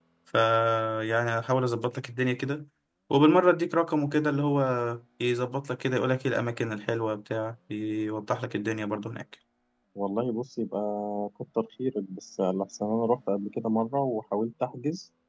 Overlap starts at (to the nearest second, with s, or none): none